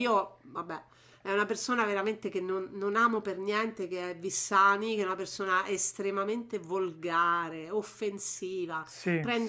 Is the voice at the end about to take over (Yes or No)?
No